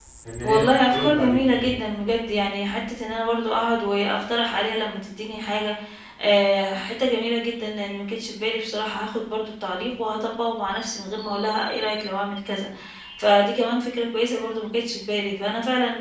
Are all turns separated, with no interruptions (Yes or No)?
No